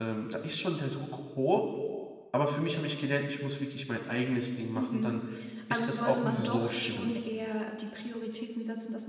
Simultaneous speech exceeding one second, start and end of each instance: 5.7-7.1

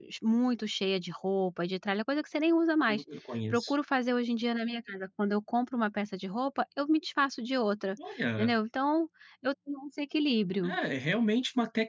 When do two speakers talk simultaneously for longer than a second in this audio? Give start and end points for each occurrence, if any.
none

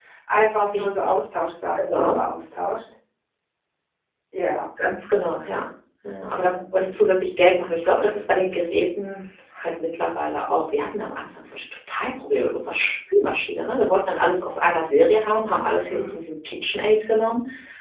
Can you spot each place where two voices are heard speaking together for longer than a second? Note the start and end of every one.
none

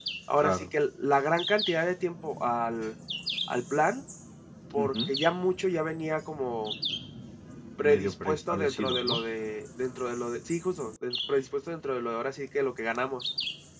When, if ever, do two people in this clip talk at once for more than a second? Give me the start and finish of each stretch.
7.8-9.2

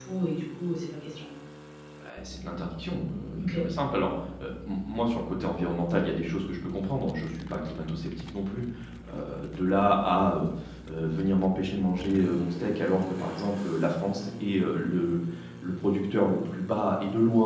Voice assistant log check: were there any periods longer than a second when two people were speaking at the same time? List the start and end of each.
none

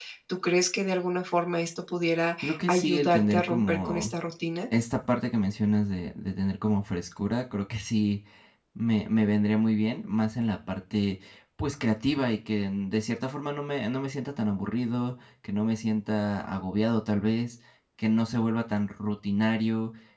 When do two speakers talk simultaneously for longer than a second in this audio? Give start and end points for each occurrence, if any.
2.4-4.2

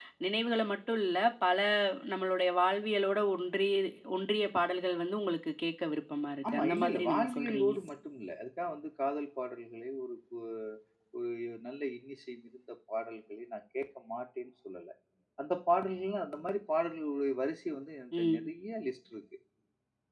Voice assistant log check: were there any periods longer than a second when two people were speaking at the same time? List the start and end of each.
6.5-7.8

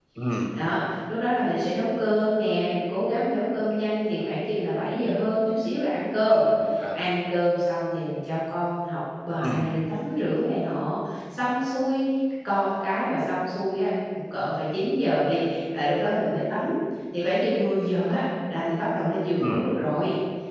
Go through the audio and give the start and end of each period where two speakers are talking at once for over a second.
none

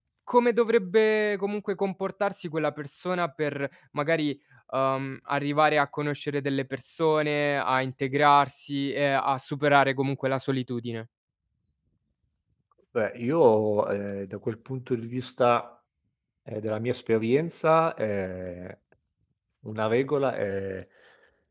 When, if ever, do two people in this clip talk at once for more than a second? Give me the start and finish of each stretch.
none

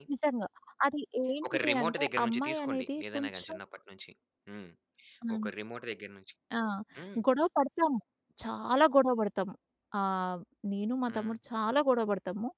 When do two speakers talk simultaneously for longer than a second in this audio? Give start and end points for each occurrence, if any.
1.5-3.5

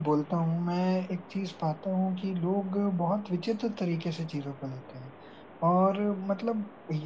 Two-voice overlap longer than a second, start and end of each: none

